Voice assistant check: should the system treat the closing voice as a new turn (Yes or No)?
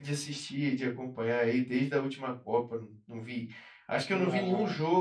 No